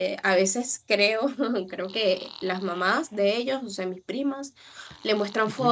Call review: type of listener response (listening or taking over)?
listening